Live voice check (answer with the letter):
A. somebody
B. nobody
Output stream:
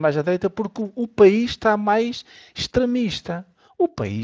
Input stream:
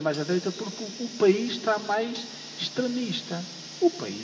B